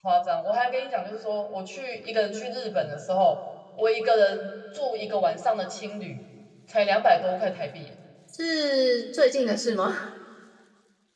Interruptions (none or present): none